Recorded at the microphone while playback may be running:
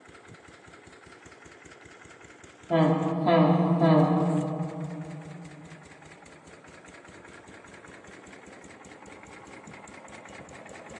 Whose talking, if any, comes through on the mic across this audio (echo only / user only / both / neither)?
user only